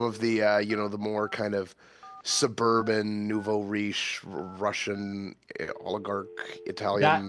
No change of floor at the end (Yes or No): No